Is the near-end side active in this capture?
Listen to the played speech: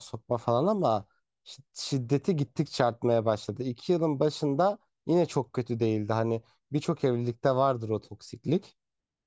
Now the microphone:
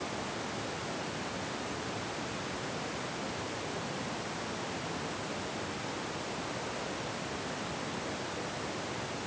No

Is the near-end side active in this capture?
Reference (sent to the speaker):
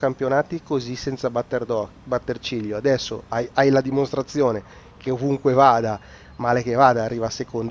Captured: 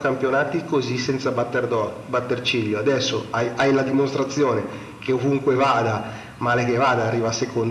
No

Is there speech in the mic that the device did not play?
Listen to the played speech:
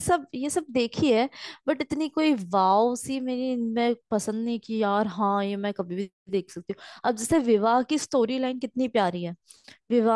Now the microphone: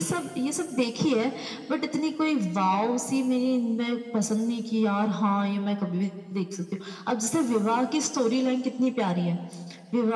No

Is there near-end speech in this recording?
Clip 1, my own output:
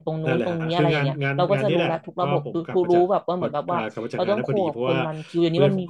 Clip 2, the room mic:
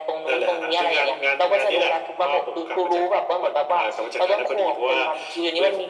No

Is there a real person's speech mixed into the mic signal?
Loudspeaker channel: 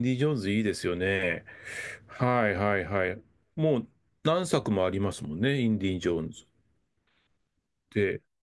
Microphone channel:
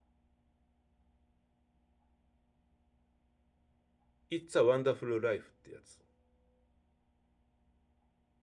Yes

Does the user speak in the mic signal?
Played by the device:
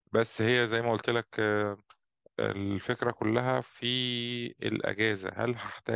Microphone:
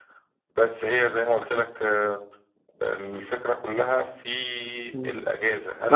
Yes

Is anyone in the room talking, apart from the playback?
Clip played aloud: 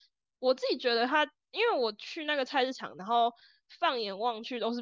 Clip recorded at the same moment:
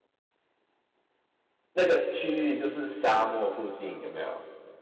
Yes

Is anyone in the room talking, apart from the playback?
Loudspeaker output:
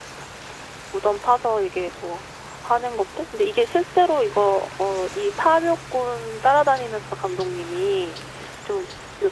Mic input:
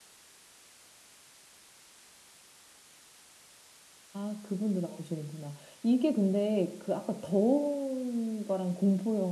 Yes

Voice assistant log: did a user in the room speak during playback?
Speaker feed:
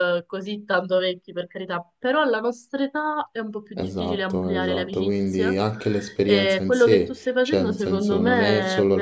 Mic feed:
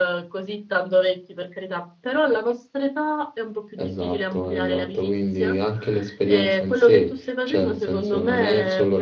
No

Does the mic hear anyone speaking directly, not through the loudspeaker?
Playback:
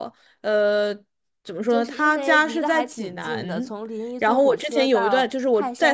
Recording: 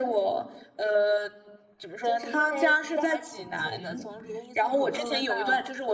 Yes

